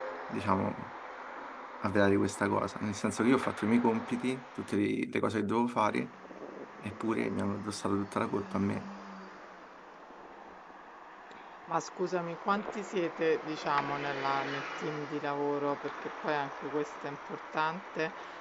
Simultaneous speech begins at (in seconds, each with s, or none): none